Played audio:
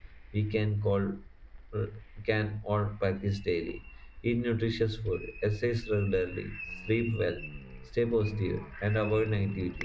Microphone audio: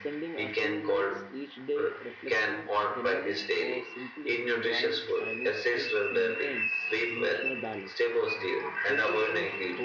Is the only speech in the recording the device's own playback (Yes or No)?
No